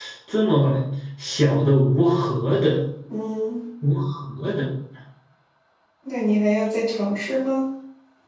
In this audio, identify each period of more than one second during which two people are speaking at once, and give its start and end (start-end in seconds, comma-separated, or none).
none